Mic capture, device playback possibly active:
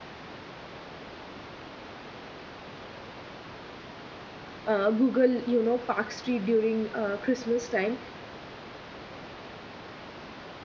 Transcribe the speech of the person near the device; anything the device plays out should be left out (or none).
uh, google you know park street during uh, christmas time